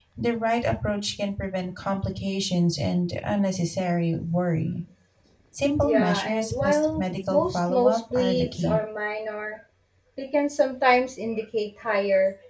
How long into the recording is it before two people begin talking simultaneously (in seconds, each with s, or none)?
5.8 s